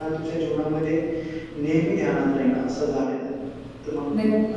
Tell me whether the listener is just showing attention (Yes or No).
No